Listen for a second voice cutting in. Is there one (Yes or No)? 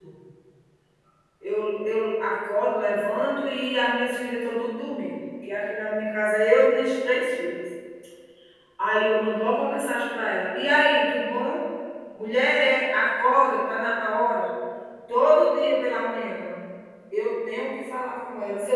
No